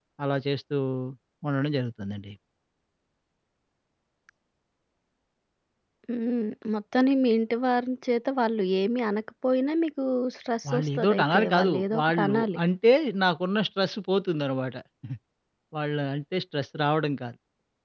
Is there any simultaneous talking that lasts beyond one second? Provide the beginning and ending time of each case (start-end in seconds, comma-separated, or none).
10.7-12.6